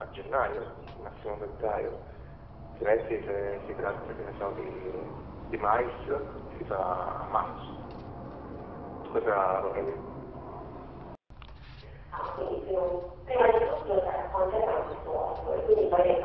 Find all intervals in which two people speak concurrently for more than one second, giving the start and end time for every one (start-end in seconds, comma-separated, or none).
none